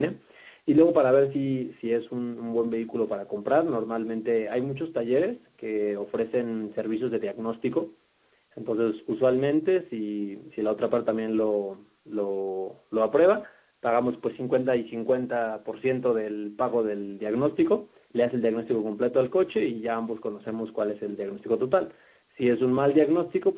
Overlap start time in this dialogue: none

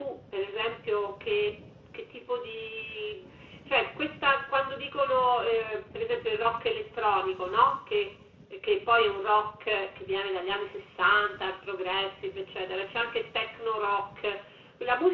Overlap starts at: none

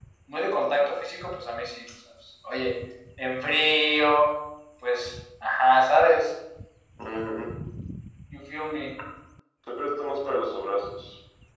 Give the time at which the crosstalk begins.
none

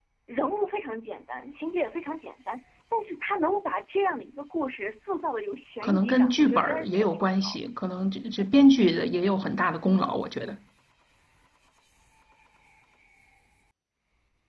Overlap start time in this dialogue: 5.8 s

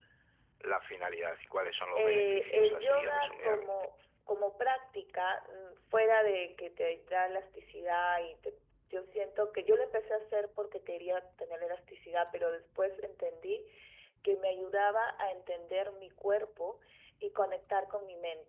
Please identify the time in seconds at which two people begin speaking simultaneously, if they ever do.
2.0 s

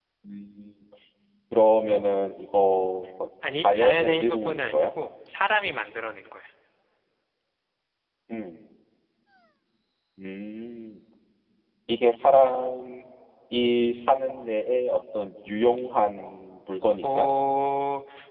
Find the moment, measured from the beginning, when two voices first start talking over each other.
3.5 s

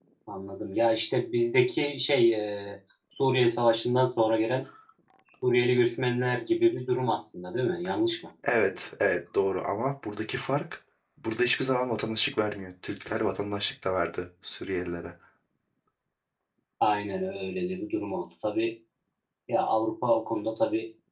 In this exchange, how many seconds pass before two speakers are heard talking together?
none

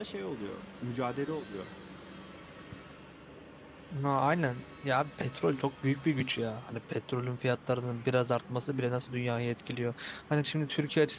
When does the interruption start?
none

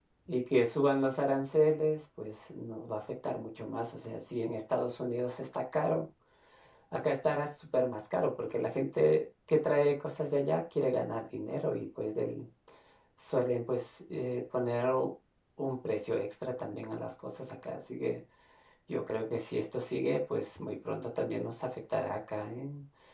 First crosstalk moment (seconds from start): none

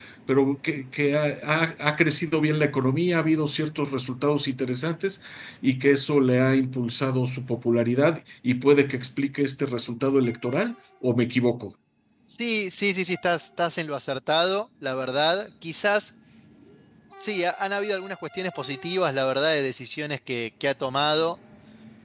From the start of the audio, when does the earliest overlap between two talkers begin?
none

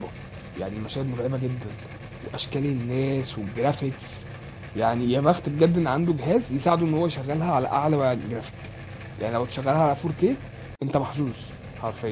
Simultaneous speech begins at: none

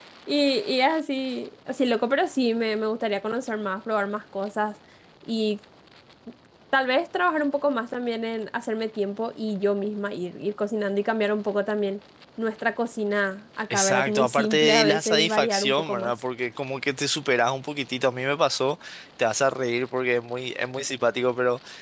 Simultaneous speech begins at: 13.7 s

